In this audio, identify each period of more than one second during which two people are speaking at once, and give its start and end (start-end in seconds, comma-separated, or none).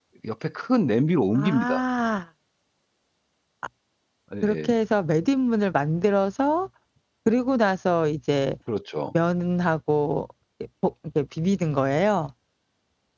none